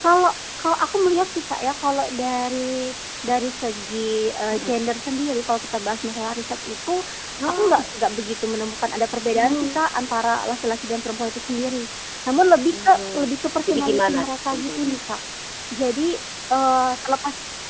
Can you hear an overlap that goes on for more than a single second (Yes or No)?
Yes